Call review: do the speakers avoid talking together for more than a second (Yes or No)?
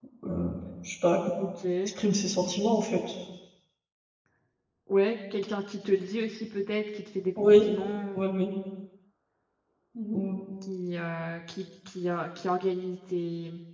Yes